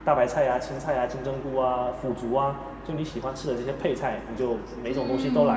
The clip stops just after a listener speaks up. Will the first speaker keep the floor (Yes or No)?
No